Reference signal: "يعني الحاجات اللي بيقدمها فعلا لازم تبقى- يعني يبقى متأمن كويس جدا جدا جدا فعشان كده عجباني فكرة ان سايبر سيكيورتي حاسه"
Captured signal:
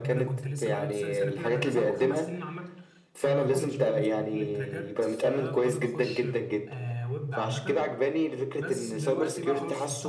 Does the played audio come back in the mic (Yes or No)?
Yes